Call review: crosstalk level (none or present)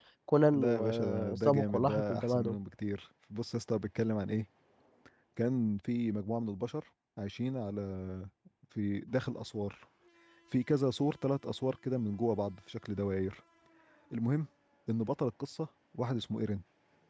present